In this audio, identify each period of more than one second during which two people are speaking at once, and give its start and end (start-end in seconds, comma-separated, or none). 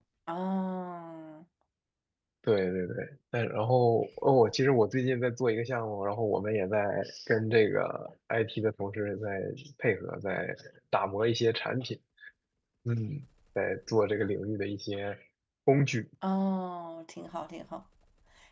none